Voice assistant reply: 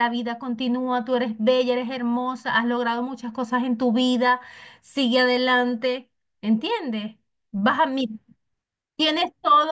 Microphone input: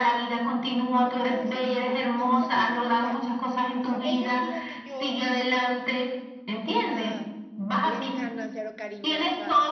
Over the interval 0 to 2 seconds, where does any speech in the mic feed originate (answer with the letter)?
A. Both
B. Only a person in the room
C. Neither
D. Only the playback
A